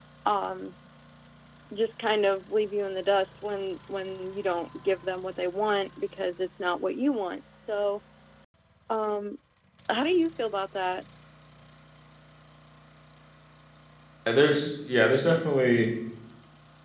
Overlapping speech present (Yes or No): No